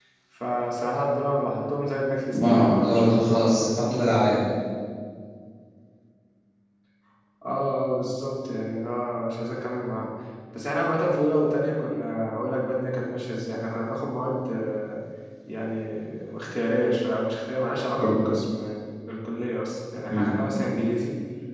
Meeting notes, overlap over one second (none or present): present